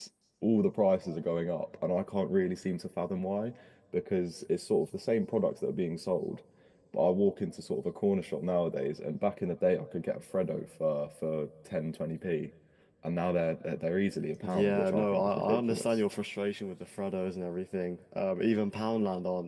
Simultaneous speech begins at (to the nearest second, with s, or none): 14 s